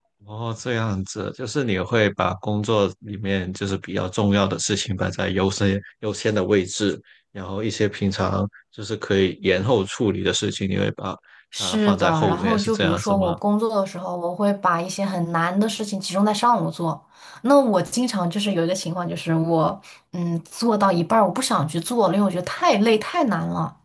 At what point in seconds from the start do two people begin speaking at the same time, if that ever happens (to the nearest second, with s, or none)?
12 s